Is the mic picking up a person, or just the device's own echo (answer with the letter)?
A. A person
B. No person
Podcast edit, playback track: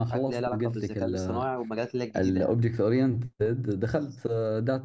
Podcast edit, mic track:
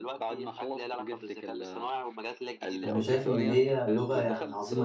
A